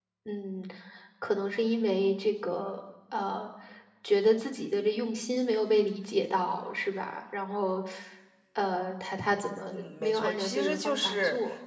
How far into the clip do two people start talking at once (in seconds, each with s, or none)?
9.7 s